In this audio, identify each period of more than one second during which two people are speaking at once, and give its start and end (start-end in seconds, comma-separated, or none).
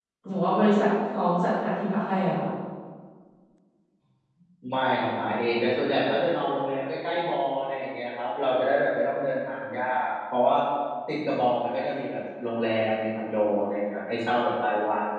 none